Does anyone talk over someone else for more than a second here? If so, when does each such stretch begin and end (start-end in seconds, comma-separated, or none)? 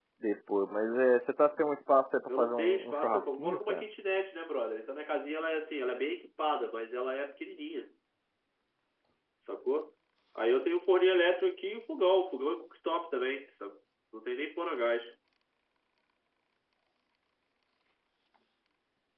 2.3-3.8